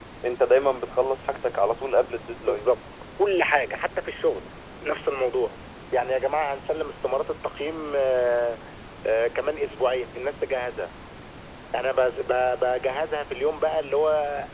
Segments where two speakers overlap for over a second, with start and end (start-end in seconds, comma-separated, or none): none